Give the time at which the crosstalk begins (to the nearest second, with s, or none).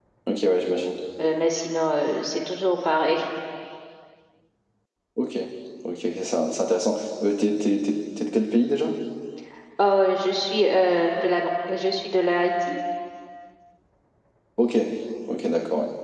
none